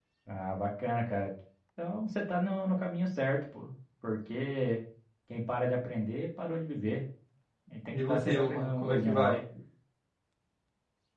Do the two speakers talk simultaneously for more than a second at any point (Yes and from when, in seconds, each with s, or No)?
Yes, from 7.9 s